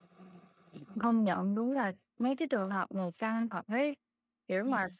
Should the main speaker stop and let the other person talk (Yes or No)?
No